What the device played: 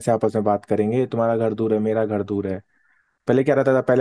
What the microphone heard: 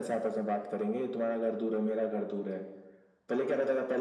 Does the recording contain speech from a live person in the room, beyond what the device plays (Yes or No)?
No